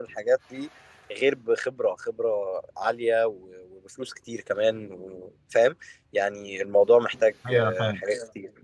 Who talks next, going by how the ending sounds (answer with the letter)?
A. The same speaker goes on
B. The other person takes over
B